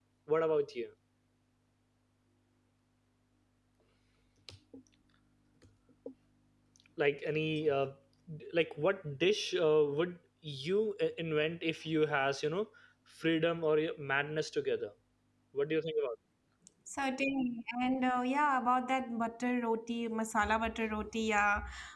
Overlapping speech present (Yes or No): No